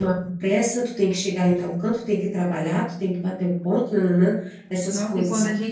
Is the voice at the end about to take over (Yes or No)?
Yes